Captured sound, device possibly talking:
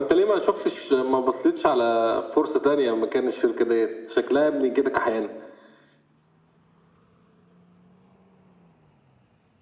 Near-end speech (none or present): none